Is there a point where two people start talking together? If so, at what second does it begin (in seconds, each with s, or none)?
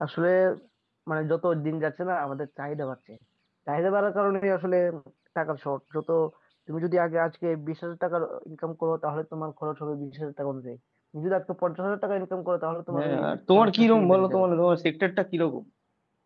12.9 s